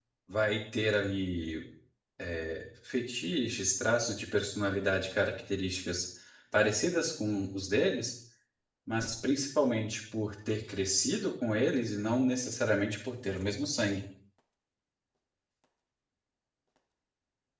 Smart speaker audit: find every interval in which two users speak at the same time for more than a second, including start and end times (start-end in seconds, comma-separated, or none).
none